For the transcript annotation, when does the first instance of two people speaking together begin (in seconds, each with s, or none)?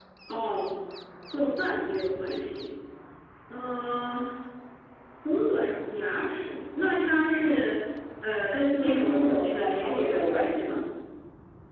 8.8 s